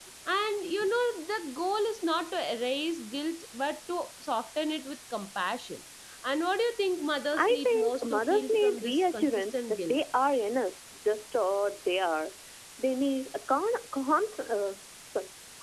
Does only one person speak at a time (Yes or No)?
No